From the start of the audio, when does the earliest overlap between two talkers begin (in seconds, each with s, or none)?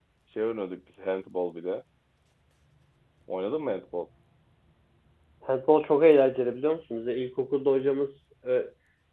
none